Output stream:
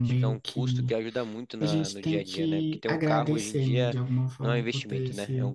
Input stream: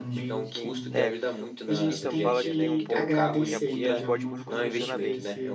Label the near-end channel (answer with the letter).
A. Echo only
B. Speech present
B